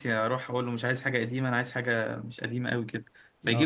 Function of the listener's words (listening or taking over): listening